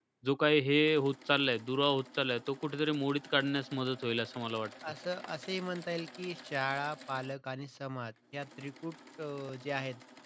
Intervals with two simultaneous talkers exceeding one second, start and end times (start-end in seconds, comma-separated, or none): none